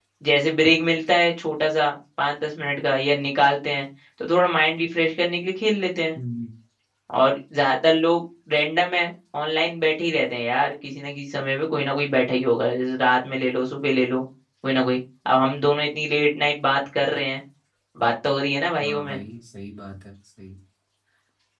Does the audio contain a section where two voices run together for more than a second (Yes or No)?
No